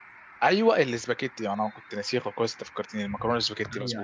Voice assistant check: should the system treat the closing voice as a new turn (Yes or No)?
Yes